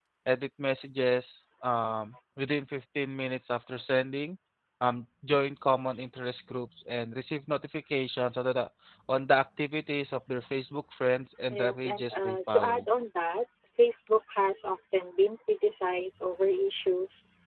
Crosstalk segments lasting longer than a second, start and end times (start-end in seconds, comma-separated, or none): 11.5-12.8